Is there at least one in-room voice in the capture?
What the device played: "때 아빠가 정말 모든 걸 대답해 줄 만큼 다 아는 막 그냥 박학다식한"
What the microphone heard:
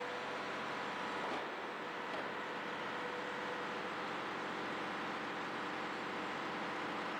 No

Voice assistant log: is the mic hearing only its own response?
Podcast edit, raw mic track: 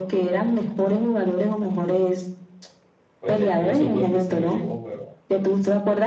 No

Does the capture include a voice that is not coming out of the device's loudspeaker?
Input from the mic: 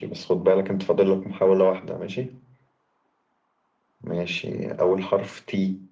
No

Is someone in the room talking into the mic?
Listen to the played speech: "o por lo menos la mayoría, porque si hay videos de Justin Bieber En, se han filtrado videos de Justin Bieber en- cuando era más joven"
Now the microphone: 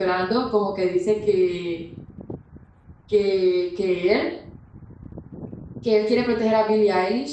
Yes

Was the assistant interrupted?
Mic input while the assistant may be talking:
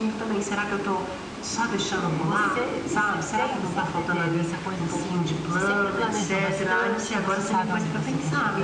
Yes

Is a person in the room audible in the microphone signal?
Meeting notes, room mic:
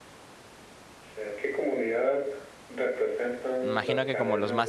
Yes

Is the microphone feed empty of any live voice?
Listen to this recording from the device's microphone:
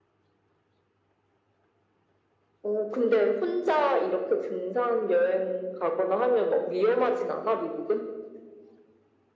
Yes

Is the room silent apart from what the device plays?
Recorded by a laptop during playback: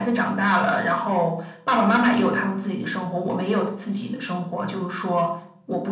Yes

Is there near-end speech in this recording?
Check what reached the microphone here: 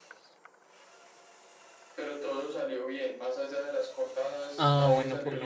Yes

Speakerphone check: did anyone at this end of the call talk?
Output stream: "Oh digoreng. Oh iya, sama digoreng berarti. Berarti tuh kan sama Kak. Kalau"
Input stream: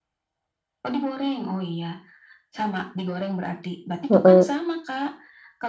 Yes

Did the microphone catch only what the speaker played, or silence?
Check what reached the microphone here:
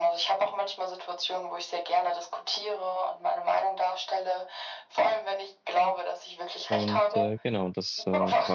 No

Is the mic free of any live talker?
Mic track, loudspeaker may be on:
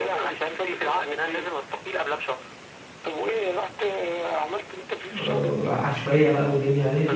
No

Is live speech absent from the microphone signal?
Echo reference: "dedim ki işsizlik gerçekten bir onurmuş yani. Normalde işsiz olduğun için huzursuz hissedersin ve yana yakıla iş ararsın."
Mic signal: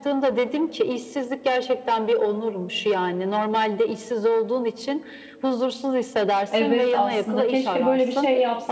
No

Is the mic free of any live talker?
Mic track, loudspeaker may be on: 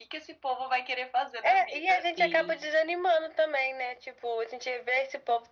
No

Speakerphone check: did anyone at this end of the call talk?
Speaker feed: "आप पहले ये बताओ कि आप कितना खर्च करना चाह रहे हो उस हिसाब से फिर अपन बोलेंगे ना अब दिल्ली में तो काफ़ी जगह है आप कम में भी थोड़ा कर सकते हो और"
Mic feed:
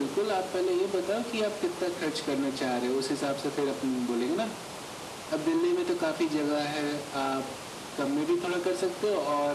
No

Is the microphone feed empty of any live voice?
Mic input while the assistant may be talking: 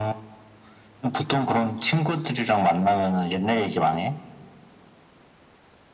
Yes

